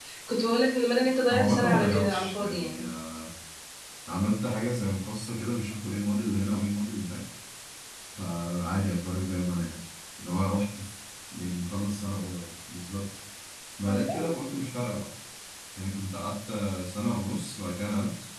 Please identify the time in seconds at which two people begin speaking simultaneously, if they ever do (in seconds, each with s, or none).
1.3 s